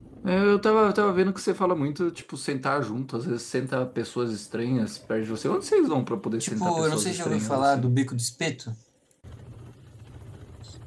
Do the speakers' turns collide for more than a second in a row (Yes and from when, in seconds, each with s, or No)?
Yes, from 6.4 s